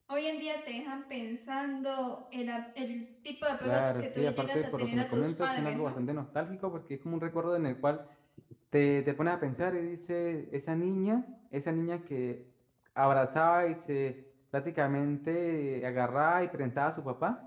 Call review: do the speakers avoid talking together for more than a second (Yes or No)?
No